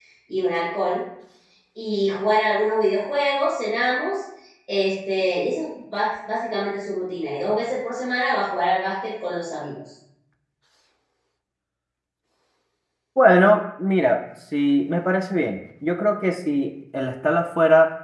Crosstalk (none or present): none